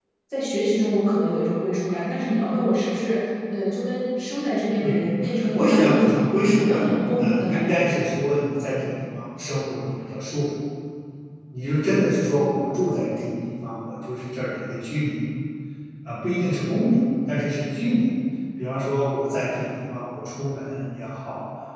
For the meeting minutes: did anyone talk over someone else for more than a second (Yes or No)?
Yes